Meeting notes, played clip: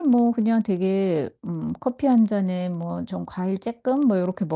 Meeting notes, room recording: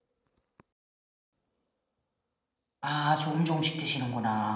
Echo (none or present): none